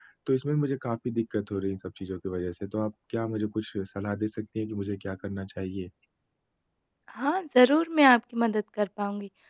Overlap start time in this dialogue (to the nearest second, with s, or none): none